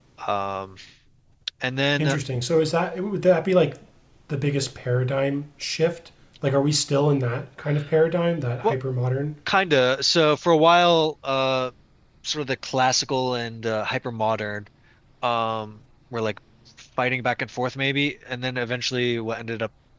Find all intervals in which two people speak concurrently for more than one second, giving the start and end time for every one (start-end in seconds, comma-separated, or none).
none